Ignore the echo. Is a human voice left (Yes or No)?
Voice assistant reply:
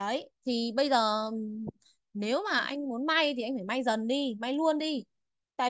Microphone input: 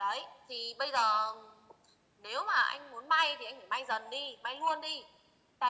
No